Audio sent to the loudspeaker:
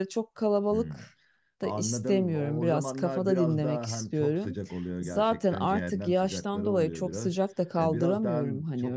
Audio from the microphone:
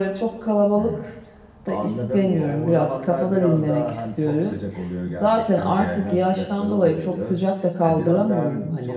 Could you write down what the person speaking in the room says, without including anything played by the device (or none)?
none